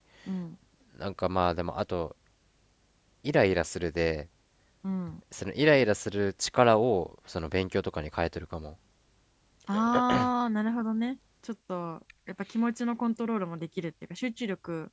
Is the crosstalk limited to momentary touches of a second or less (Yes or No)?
Yes